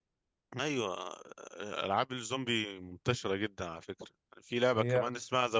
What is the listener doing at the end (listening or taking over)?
listening